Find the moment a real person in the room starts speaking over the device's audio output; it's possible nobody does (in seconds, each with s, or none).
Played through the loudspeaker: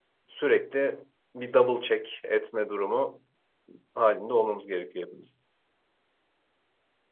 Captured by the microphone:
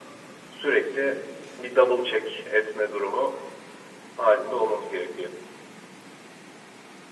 none